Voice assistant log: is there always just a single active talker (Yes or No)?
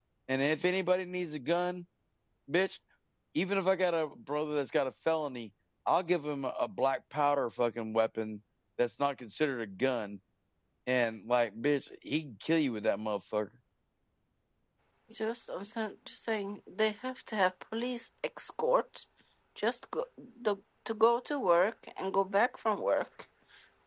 Yes